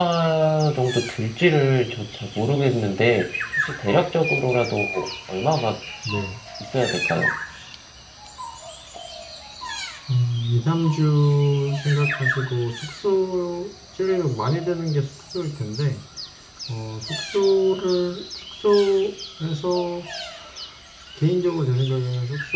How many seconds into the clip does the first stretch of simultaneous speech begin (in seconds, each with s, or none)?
none